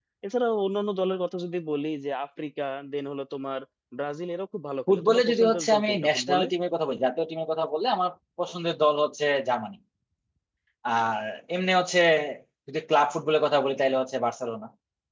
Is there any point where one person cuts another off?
Yes, from 4.9 s

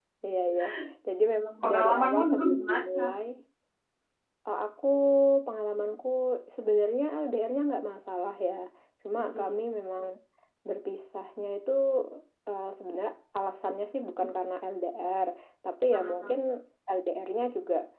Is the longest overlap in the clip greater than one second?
Yes, from 1.6 s

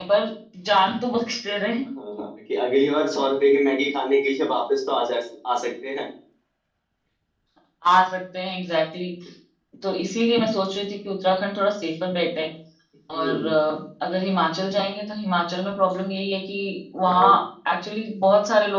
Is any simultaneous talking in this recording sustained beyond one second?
No

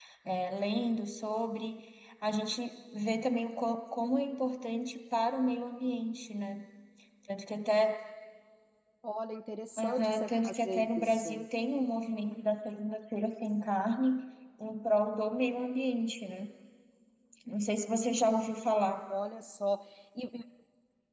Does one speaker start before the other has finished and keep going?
Yes, from 9.8 s

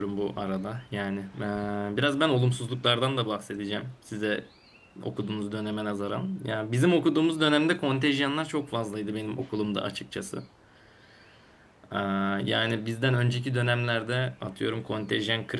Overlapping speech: No

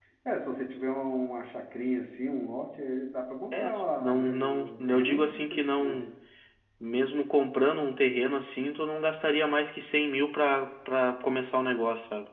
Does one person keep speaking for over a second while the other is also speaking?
Yes, from 3.5 s

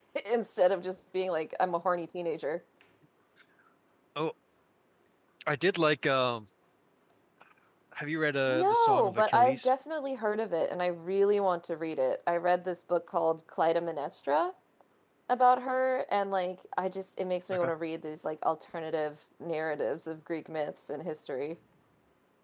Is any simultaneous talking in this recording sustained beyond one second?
Yes, from 8.5 s

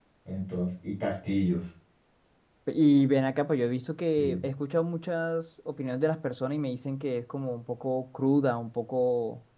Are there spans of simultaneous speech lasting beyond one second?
No

